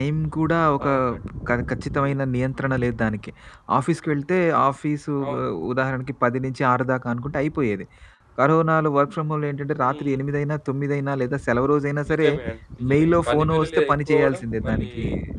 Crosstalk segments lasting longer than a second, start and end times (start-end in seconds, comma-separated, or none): 12.9-14.9